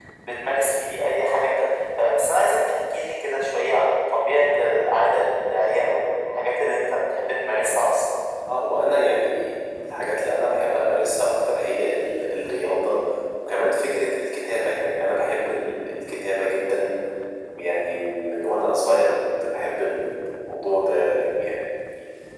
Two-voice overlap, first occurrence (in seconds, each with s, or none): none